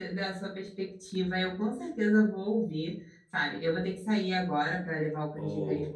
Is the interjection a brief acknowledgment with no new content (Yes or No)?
Yes